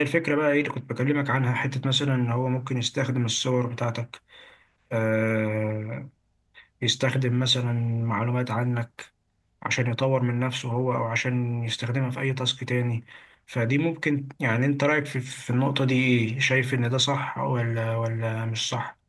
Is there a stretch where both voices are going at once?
No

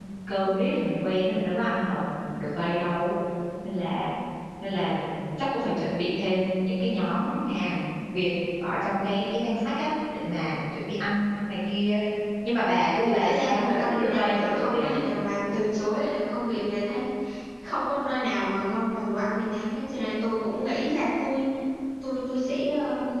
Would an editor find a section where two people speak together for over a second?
Yes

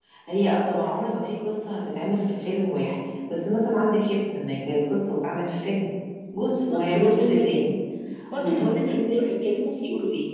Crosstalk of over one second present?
Yes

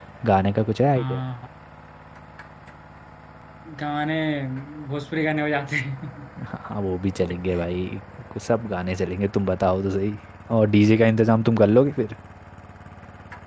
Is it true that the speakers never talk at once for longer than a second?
Yes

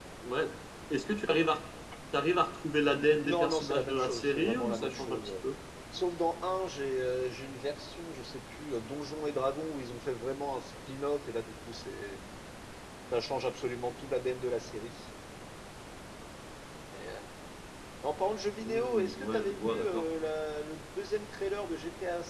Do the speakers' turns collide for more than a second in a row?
Yes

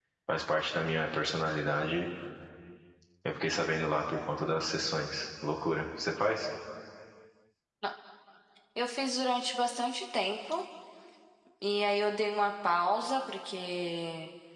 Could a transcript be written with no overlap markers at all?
Yes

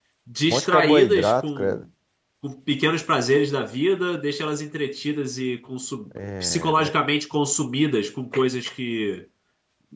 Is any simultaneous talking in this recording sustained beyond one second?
Yes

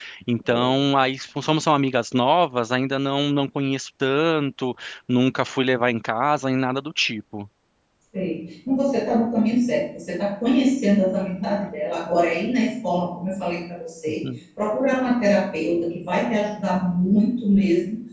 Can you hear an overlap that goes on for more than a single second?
No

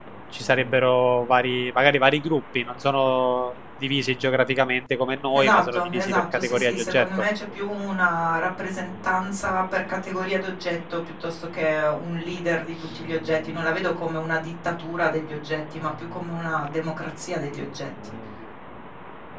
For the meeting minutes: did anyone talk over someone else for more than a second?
Yes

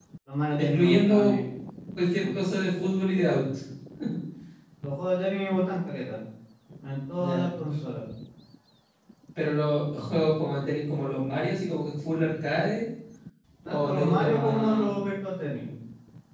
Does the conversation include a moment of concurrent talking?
Yes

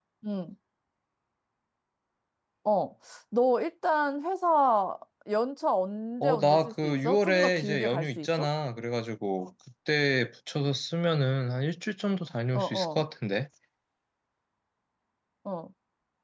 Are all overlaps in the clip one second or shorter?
No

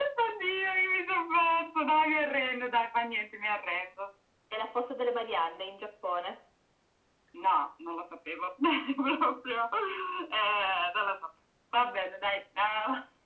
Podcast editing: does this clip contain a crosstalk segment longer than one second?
No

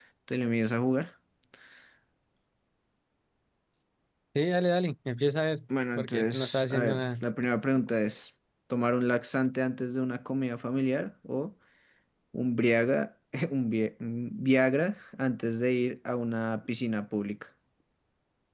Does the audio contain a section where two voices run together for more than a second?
Yes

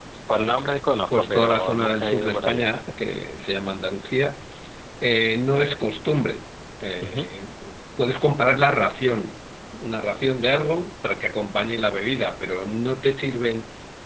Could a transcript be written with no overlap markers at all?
No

